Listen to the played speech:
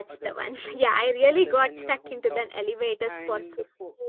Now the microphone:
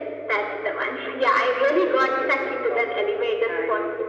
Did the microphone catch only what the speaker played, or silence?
Yes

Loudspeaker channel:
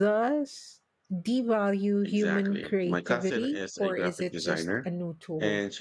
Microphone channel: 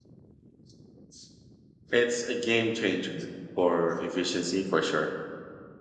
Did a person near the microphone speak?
Yes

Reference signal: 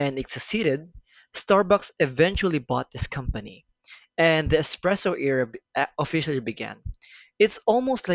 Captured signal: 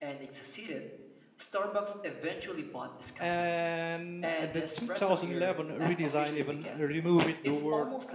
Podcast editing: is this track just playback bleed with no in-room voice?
No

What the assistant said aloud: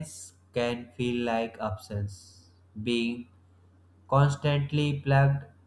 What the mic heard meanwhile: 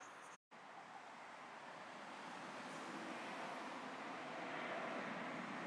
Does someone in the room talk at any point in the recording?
No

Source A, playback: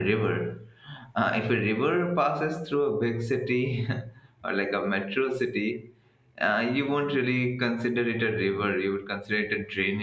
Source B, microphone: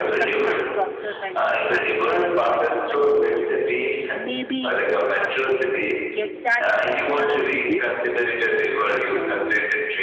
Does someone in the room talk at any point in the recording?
Yes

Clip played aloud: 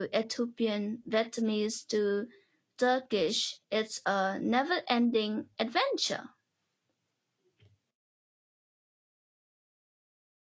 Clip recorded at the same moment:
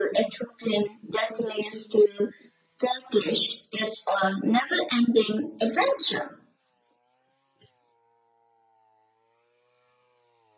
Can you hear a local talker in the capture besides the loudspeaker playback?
No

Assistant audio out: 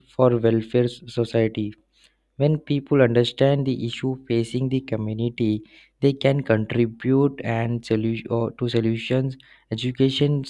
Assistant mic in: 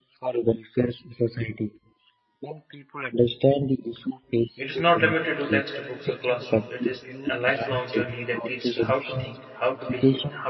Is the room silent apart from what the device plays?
No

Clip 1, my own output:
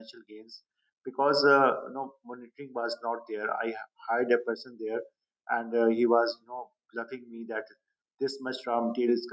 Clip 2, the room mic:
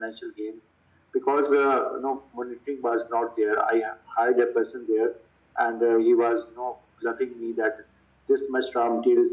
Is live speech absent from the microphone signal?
Yes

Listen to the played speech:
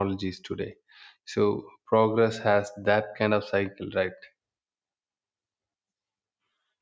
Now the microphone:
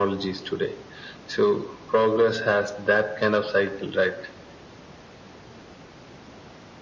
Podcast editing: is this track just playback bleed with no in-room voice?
Yes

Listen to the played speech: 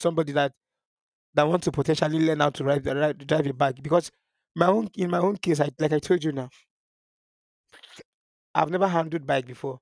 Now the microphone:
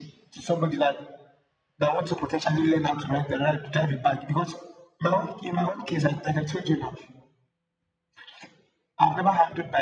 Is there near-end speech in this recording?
No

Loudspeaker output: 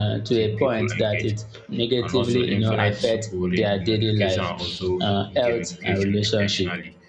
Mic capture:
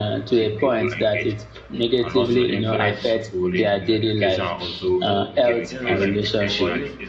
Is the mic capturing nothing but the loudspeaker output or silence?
No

